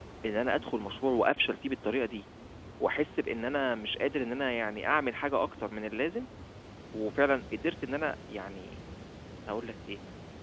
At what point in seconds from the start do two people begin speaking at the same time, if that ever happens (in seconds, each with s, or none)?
none